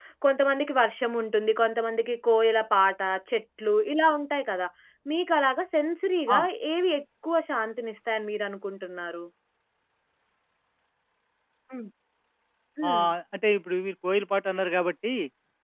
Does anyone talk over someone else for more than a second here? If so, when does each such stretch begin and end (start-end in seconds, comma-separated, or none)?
none